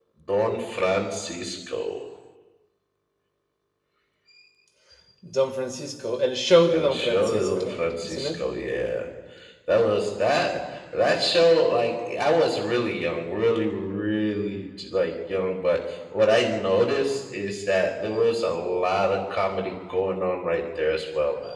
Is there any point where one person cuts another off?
Yes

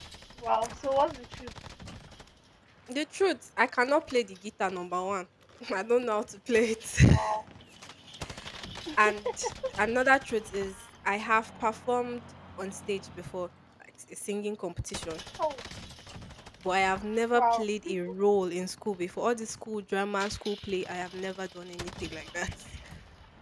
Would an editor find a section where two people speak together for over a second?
No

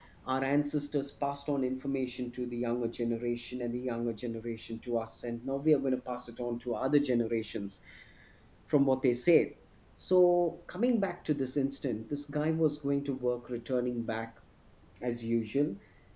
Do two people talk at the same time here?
No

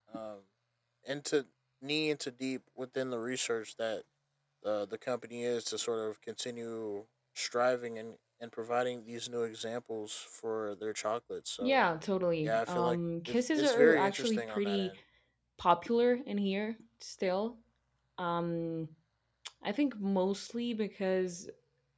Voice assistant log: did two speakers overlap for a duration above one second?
Yes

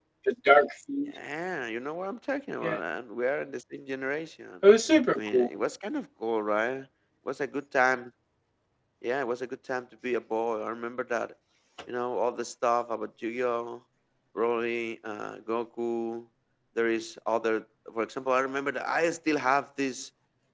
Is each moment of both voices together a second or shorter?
Yes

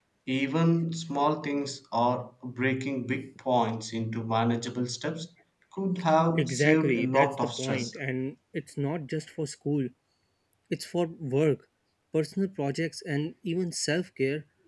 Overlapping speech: Yes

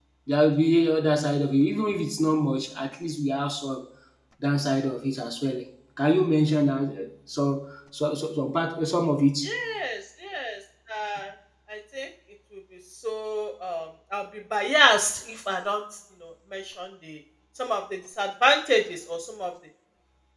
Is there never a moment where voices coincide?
Yes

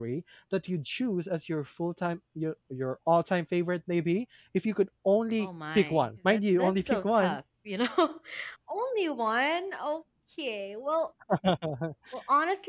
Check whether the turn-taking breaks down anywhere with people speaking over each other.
Yes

